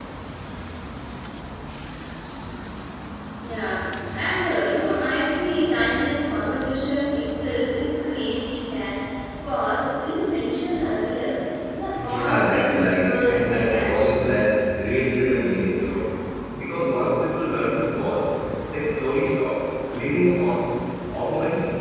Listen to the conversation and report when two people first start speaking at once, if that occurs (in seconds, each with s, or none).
11.9 s